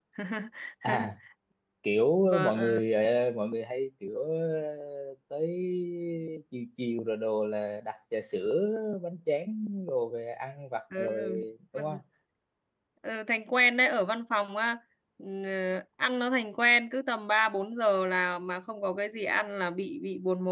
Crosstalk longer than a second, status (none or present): none